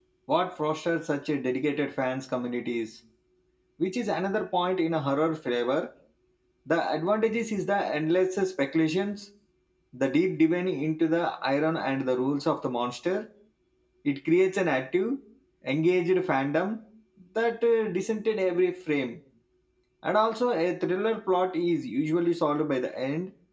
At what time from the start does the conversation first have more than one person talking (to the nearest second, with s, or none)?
none